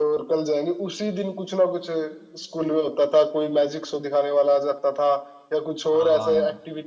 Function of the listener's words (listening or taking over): listening